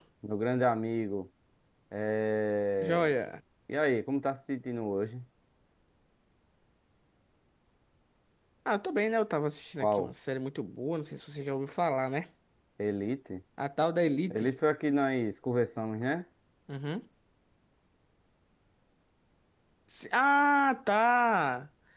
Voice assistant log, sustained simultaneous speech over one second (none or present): none